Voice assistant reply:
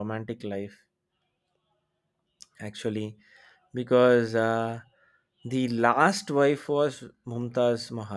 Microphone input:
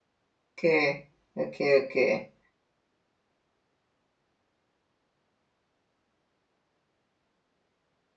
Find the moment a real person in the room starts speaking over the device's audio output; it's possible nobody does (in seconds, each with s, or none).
0.5 s